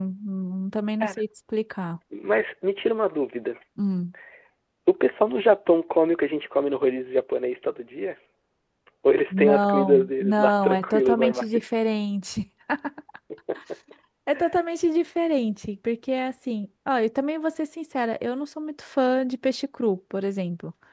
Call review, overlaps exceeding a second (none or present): present